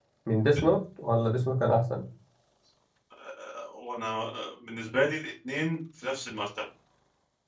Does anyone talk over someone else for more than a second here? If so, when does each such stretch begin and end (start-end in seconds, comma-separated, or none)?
none